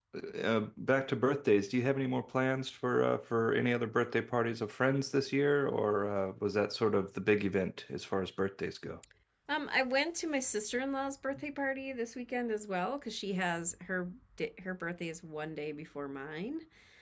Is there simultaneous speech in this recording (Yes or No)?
No